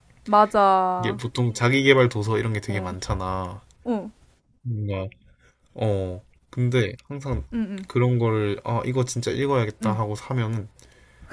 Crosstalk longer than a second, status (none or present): none